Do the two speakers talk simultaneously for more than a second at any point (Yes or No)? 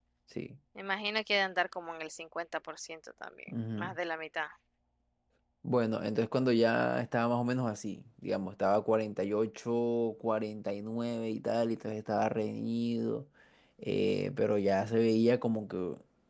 No